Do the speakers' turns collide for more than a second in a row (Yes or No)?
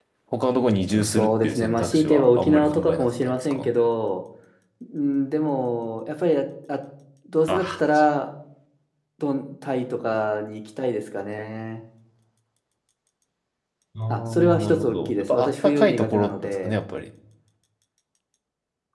Yes